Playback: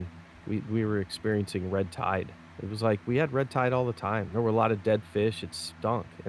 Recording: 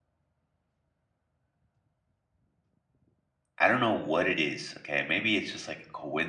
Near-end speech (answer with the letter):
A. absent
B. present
B